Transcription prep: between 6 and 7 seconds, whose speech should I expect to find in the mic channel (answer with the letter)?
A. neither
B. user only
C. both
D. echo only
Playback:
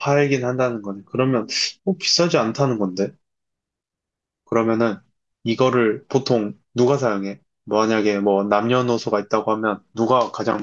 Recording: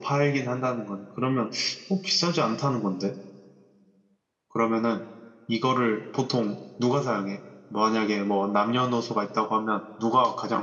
D